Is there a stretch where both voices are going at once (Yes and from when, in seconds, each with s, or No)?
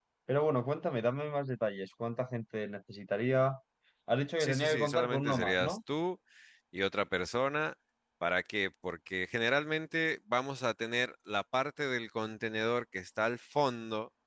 Yes, from 4.4 s